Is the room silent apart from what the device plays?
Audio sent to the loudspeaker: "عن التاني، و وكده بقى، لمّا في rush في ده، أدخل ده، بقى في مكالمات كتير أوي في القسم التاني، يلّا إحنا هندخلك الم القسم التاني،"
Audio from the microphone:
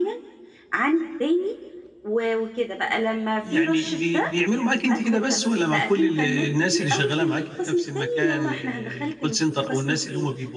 No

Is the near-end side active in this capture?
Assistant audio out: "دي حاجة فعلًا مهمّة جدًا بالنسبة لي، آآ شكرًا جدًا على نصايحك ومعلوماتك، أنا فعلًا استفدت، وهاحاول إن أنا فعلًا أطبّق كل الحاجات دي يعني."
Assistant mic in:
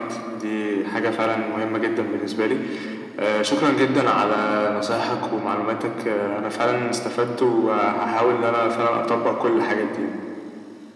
No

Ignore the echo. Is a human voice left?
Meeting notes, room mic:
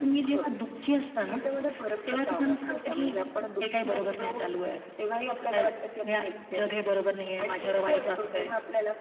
No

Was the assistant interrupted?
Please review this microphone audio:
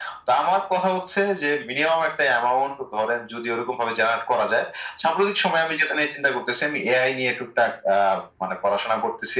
No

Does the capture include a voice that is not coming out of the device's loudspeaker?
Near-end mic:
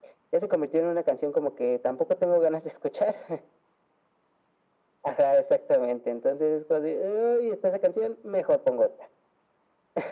No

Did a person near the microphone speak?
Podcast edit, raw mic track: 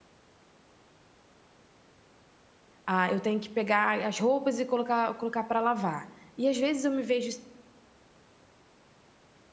Yes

